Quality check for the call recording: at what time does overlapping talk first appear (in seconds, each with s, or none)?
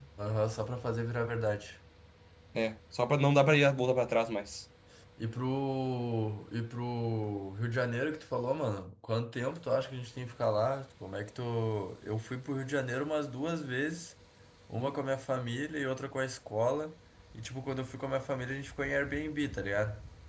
none